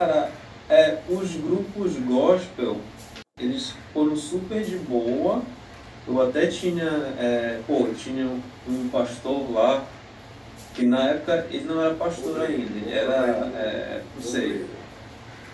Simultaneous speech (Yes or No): Yes